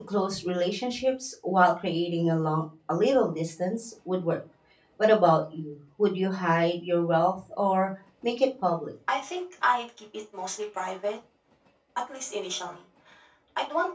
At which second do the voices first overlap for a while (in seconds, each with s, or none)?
none